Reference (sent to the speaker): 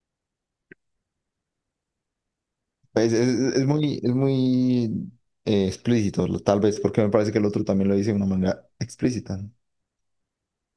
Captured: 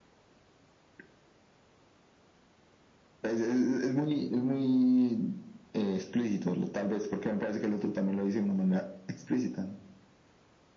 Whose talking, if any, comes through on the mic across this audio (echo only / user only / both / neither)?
echo only